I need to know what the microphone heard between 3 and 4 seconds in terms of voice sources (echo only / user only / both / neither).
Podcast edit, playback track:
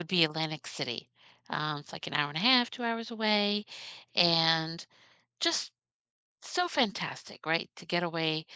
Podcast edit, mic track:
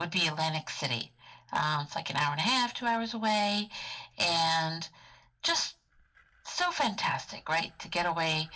echo only